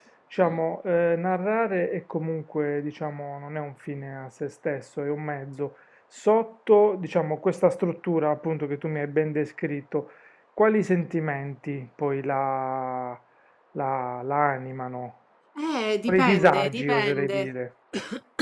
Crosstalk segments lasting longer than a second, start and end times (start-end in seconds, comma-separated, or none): 16.1-17.5